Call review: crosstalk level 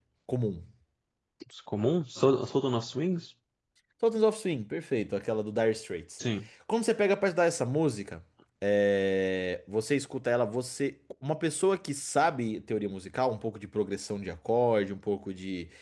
none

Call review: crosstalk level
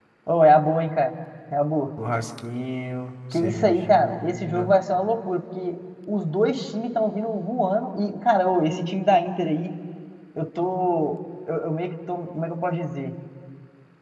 present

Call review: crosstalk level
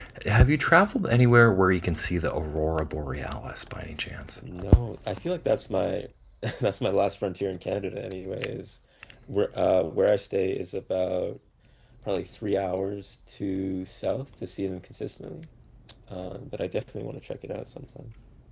none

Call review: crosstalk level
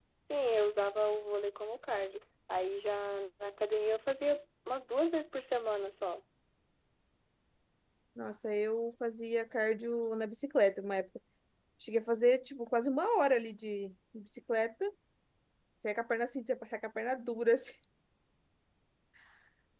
none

